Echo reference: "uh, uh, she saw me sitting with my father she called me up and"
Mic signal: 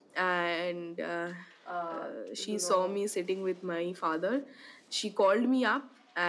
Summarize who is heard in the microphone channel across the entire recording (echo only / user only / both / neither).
both